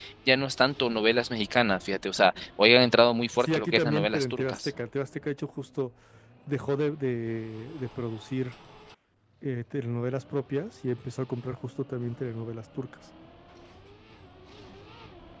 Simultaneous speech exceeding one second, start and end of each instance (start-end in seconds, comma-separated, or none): 3.4-4.7